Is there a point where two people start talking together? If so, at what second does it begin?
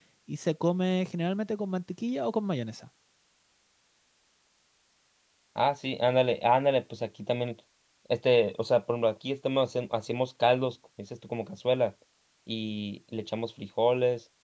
none

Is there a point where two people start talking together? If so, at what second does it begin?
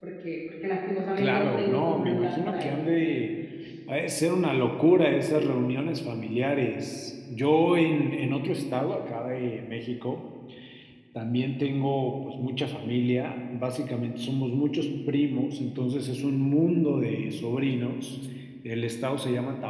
1.1 s

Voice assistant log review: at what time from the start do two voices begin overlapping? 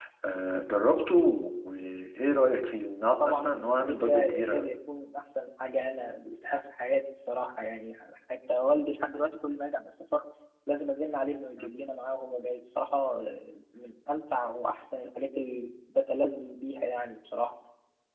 3.2 s

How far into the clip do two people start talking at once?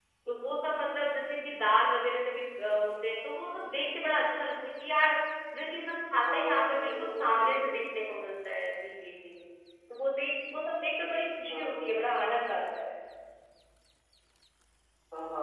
6.1 s

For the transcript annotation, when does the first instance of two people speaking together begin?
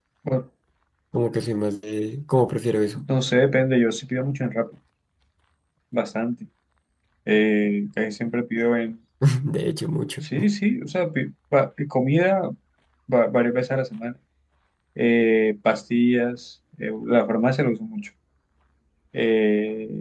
none

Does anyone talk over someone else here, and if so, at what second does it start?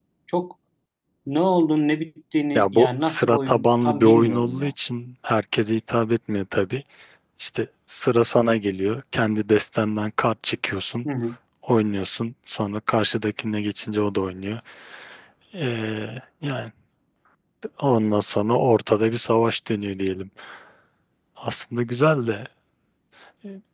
2.5 s

